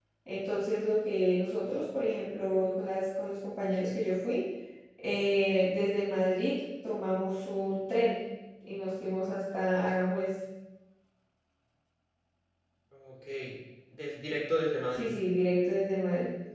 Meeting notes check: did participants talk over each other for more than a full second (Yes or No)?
No